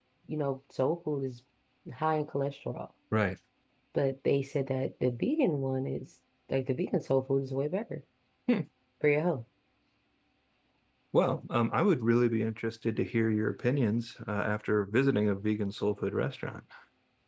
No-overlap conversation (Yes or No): Yes